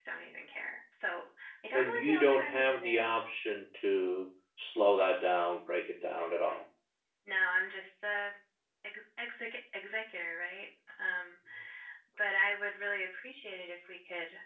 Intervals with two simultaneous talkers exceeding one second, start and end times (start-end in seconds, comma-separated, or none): 1.7-3.2